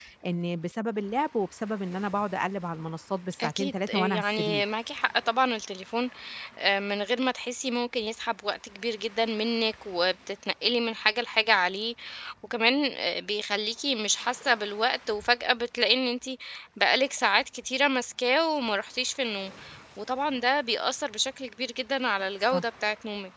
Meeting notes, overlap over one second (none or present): present